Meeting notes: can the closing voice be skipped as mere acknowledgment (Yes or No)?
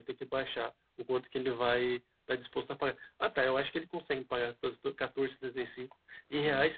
Yes